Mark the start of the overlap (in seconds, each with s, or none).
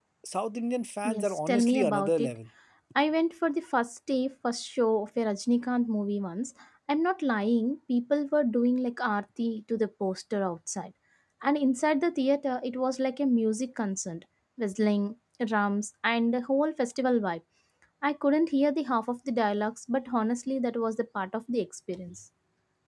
1.0 s